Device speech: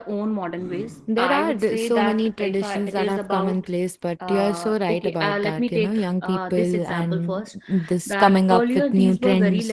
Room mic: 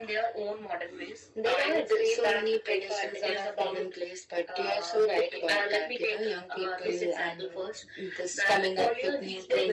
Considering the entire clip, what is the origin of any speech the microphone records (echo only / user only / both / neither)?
echo only